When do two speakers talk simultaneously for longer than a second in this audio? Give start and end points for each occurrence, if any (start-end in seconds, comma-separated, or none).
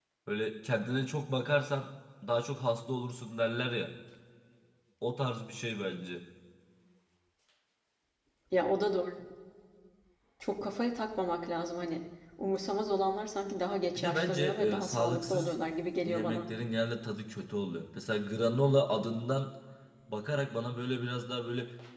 13.9-15.5